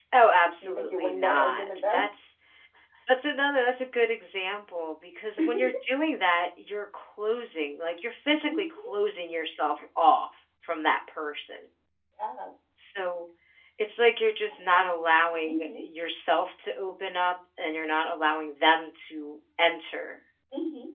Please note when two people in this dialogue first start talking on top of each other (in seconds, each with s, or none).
0.6 s